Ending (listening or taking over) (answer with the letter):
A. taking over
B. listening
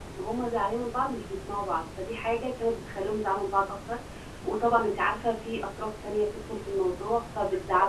A